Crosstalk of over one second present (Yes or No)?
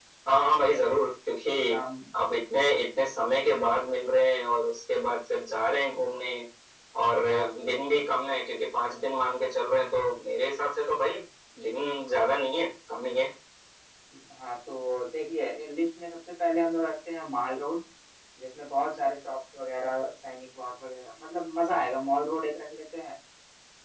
No